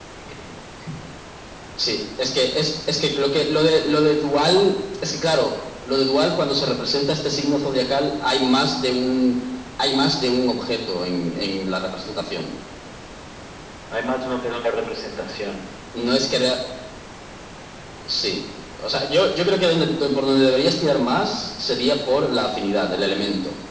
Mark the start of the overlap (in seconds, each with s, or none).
none